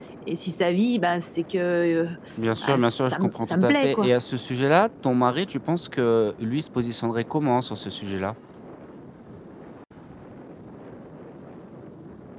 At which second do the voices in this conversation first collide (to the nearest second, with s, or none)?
3 s